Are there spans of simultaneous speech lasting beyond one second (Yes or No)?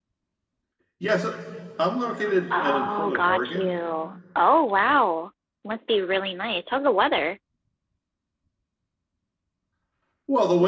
Yes